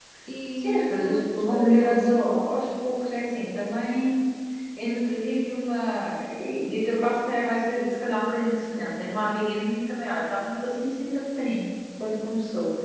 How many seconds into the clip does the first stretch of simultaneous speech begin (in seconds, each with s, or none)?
0.6 s